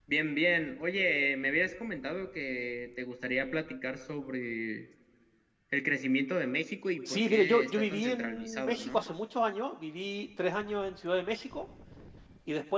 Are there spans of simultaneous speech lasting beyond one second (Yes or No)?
Yes